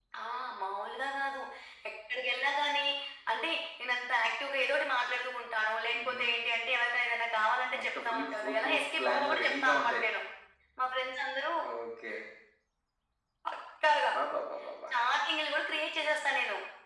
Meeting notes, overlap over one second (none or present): present